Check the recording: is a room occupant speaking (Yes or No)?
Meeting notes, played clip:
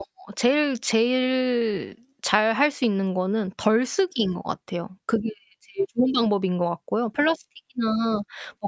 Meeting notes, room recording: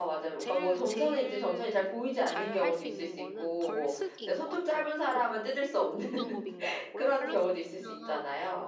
Yes